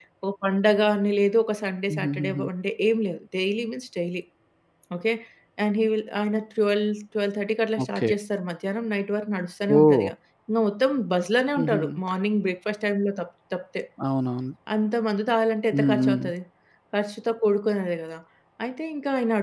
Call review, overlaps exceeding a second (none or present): none